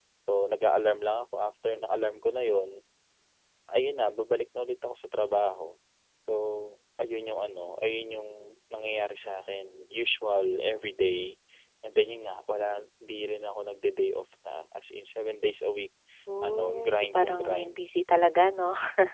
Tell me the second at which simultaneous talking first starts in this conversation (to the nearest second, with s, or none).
16 s